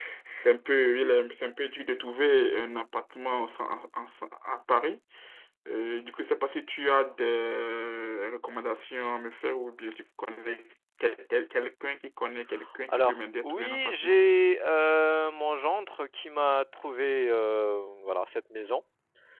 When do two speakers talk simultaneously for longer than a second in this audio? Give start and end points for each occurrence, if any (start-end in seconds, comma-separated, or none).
12.9-14.2